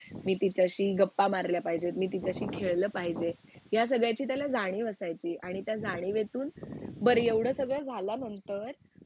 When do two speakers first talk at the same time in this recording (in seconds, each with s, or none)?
none